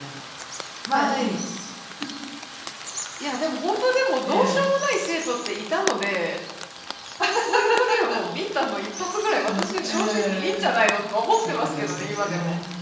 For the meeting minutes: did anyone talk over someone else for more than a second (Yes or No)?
Yes